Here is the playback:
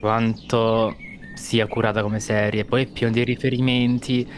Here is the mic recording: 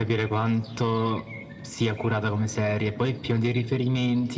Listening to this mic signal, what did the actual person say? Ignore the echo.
none

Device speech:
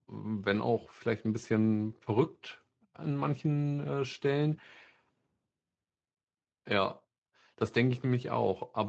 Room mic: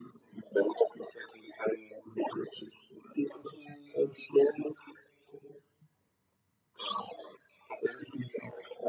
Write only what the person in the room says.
none

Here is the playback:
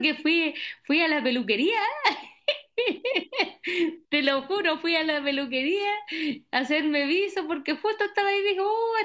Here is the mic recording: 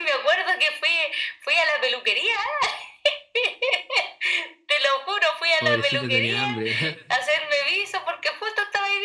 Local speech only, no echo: Pobrecita tenía hambre.

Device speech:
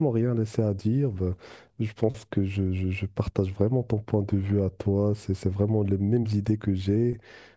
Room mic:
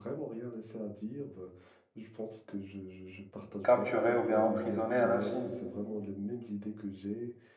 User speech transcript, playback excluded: capturé ou bien emprisonné à l'infini.

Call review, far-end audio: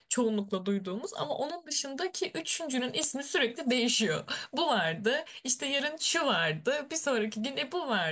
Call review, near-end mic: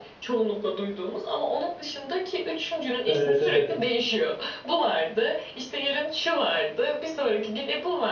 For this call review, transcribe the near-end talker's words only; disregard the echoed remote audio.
Evet evet.

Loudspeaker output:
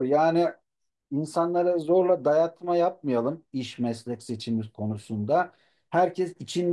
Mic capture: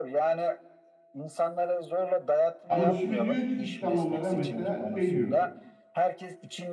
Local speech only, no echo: Ama şimdi diyor ki sistem onlara mesela şey diyor.

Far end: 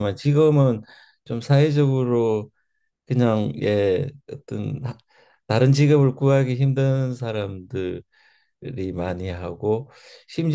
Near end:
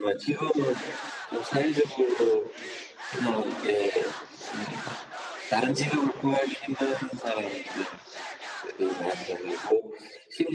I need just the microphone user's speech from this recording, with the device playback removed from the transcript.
none

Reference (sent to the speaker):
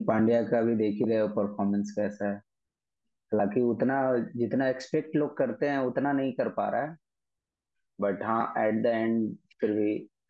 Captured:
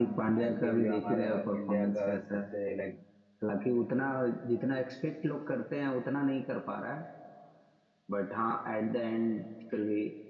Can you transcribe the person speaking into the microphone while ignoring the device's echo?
आईपीएल जो हमारा इंडिया का सबसे लाइक

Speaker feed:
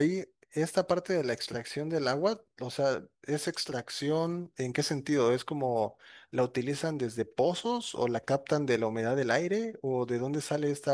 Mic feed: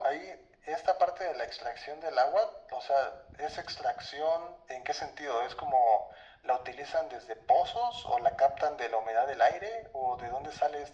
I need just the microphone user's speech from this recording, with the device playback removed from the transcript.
none

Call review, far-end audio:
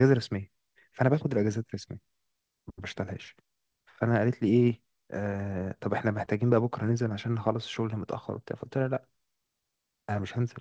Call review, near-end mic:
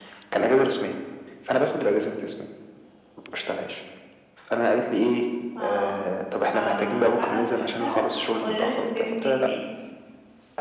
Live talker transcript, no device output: اه فبعد ما فشختها اتغيرت وجاي مدير تاني

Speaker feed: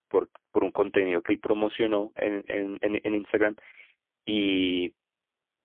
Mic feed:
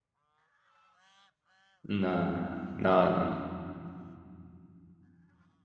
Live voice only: nada, nada, no, no.

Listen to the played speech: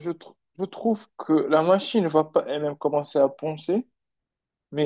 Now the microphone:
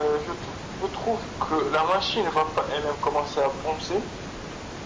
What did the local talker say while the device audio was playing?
none

